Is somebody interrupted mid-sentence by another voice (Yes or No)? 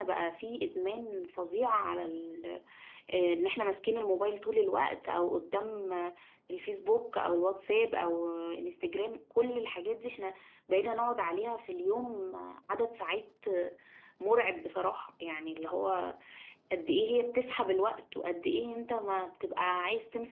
No